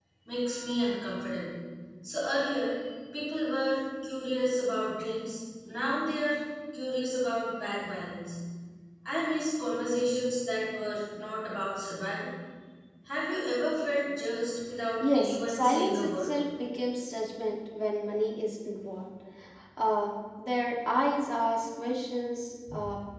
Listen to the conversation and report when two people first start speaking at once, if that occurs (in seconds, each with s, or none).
15.0 s